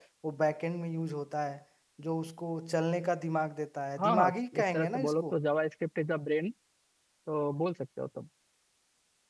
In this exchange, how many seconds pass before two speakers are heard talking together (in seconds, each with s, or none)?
4.0 s